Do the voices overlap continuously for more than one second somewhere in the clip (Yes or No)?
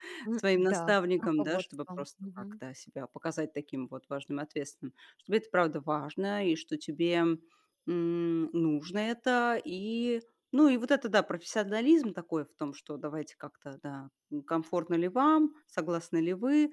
Yes